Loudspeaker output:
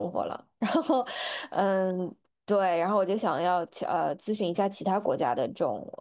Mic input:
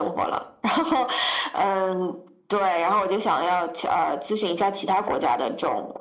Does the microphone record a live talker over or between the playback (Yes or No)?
No